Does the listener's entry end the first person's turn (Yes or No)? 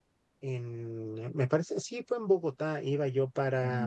No